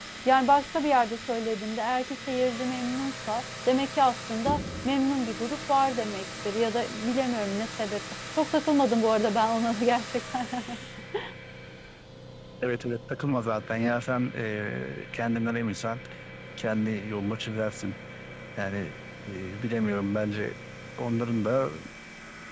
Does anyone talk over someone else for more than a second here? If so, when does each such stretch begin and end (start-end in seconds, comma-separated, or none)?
none